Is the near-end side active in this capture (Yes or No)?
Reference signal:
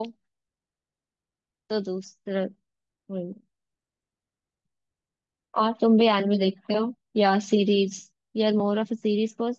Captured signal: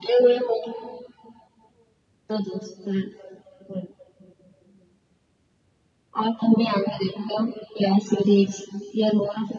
No